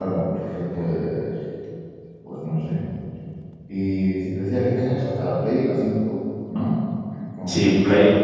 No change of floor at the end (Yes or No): No